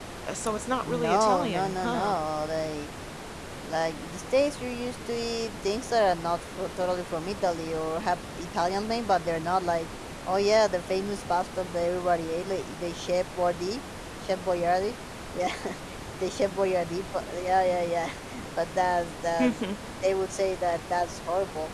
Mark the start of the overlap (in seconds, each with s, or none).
0.8 s